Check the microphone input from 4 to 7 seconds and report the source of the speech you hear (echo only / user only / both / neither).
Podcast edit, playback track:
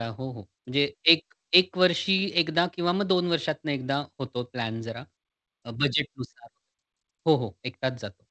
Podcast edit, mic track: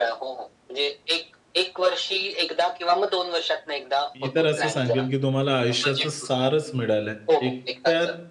both